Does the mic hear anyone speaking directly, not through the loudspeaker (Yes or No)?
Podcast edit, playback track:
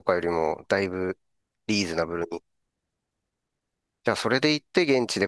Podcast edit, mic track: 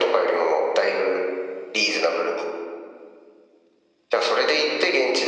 No